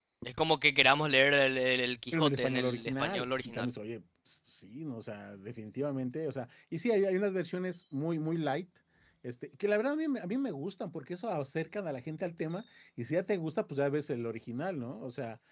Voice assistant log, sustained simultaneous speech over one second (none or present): present